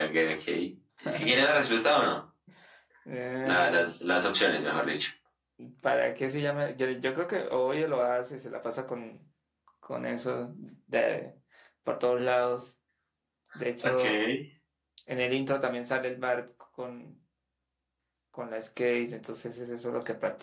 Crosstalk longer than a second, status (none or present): none